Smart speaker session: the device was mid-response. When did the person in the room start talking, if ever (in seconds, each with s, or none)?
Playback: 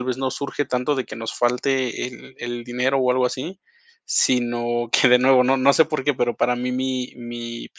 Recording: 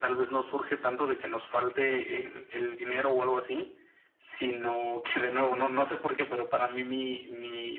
none